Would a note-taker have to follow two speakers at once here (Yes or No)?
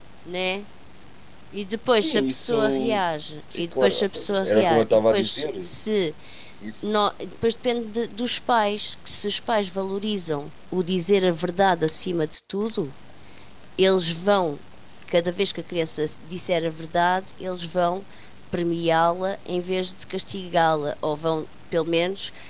Yes